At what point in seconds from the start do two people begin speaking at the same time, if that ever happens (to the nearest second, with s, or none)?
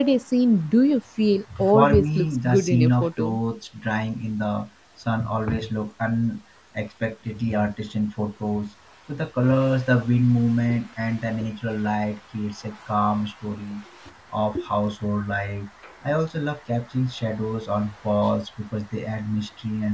2 s